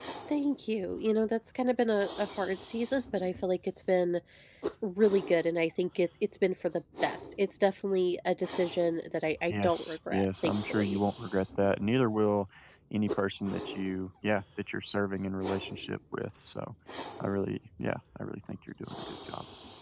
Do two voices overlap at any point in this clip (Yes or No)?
Yes